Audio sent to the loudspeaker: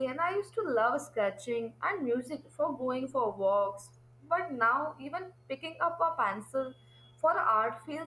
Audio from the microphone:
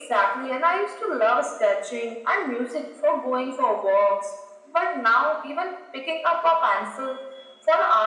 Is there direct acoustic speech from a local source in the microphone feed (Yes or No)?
No